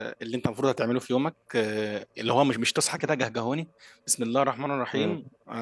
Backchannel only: Yes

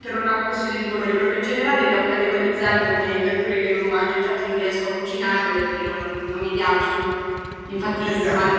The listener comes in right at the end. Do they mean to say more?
No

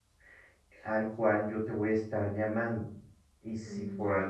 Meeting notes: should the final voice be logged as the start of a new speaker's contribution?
No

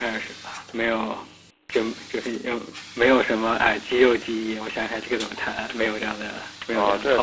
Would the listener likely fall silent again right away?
No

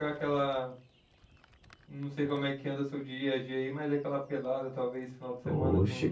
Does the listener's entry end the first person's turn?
Yes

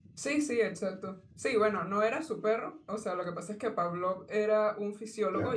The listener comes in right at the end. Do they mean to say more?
No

